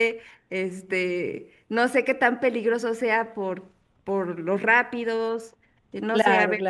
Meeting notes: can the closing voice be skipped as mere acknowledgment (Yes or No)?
No